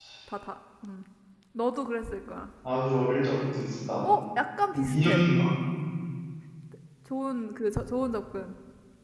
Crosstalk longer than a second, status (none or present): none